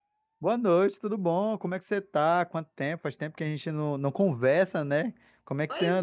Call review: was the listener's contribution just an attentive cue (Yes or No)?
No